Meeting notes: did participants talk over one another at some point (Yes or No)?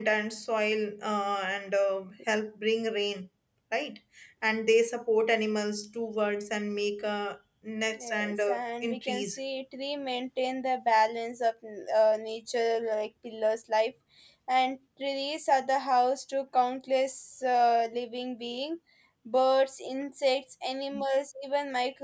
Yes